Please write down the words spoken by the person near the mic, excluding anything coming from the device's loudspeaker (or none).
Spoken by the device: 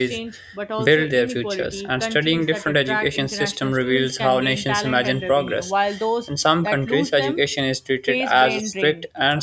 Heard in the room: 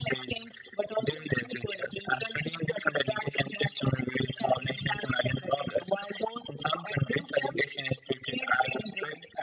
none